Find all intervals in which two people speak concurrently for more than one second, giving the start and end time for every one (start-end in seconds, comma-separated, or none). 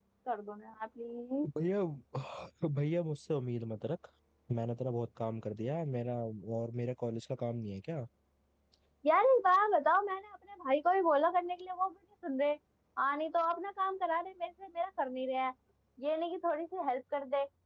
none